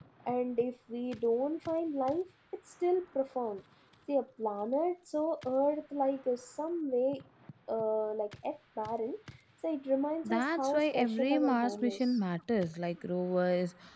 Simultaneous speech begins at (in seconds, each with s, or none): 10.2 s